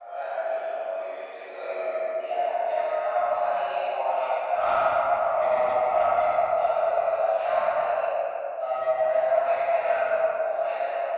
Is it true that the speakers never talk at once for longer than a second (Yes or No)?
Yes